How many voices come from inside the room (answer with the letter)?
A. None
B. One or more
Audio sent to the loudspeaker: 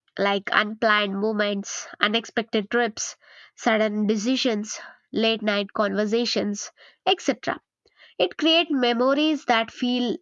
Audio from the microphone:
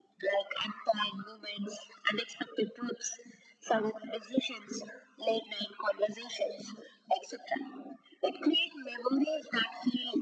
A